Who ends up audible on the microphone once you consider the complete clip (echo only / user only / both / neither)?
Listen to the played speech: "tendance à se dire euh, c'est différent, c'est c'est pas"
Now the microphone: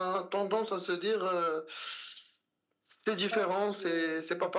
both